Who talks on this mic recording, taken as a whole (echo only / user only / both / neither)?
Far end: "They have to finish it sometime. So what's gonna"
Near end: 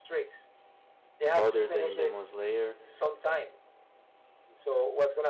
both